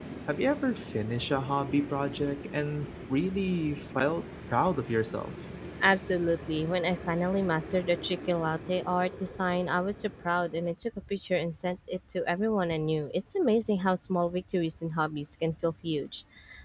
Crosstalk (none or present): none